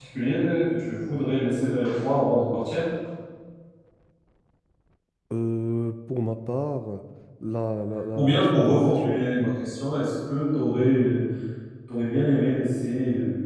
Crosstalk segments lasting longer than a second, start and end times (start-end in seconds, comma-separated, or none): 8.2-9.5